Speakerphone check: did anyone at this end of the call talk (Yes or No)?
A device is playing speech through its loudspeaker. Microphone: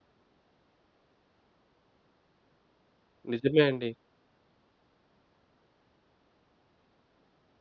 Yes